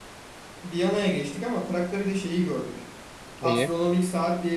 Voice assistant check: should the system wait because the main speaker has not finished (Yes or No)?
Yes